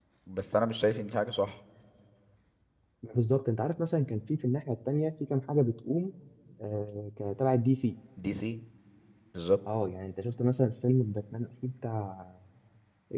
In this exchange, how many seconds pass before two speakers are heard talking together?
none

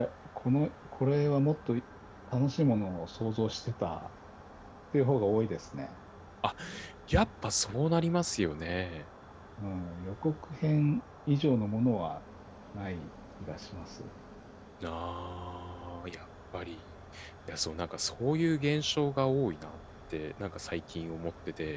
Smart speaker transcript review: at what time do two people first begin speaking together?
none

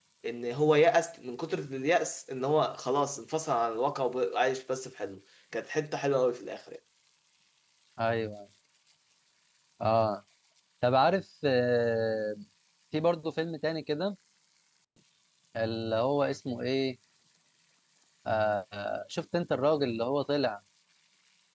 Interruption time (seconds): none

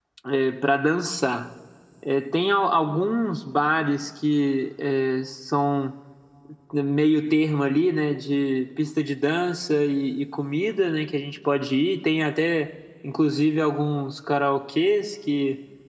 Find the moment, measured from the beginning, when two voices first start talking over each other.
none

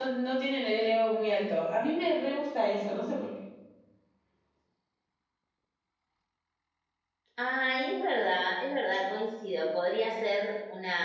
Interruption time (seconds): none

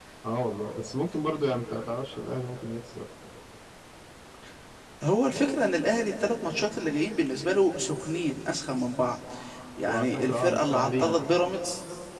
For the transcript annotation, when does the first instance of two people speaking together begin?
9.9 s

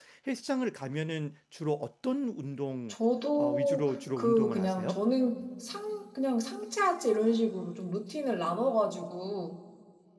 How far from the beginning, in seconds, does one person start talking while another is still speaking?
3.4 s

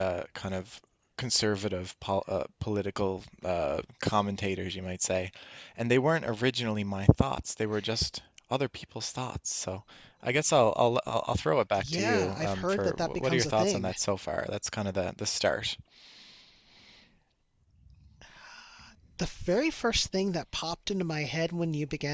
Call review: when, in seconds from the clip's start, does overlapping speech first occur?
11.7 s

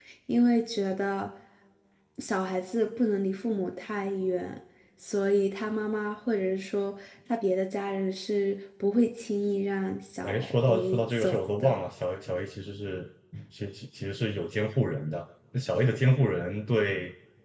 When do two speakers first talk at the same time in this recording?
10.2 s

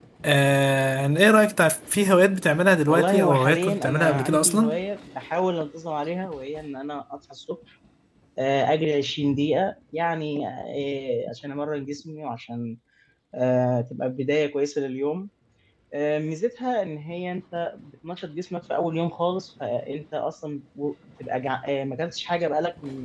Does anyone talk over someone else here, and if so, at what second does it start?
2.9 s

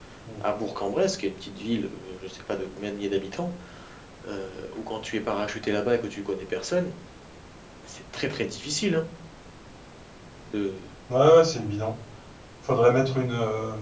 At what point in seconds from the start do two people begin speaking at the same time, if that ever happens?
none

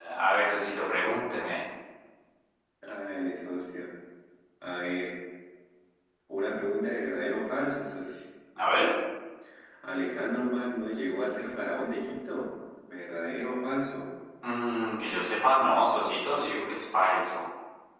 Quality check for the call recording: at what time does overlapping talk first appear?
none

